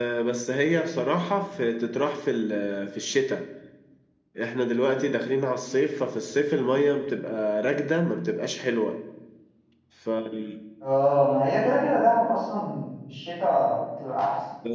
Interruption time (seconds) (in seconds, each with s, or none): none